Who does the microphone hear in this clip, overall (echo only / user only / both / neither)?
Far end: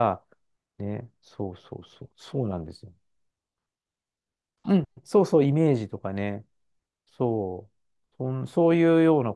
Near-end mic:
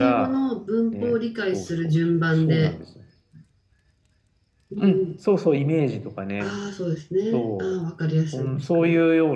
both